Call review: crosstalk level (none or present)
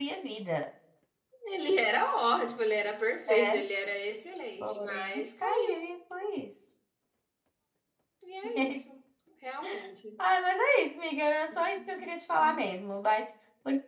present